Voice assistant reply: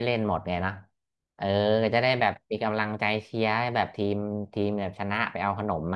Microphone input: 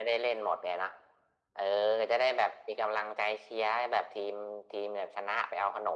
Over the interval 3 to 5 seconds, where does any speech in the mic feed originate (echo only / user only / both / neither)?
echo only